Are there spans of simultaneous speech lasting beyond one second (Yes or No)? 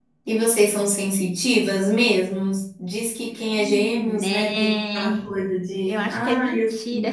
Yes